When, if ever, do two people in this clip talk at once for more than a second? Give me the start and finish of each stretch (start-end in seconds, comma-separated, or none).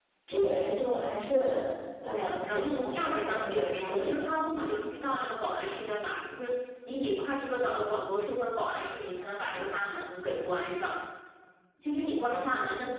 2.0-4.3